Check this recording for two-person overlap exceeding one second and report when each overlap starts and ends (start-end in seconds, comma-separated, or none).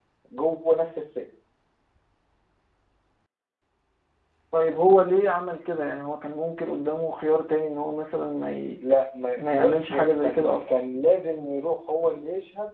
9.4-10.7